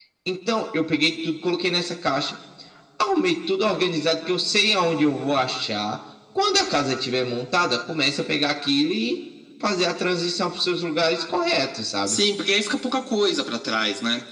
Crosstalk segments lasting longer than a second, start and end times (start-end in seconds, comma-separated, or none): none